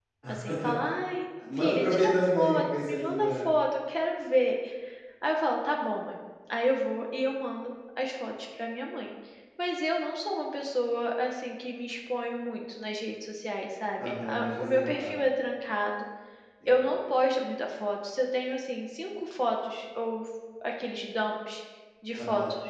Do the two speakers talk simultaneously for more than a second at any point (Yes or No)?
Yes